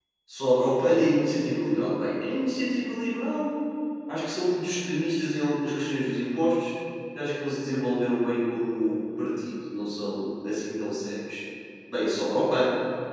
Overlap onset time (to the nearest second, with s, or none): none